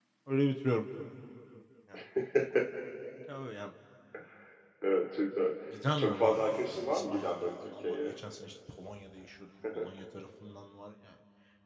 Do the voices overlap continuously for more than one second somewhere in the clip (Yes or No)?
Yes